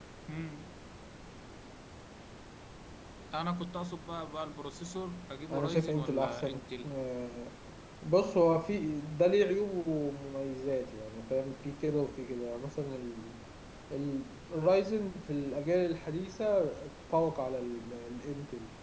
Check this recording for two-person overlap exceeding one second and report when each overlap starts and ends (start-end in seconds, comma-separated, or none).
5.5-6.9